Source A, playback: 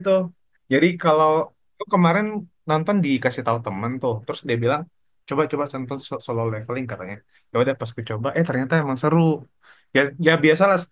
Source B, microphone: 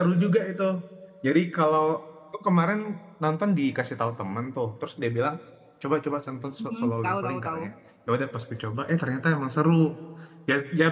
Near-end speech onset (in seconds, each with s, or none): 6.6 s